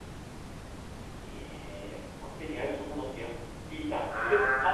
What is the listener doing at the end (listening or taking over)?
listening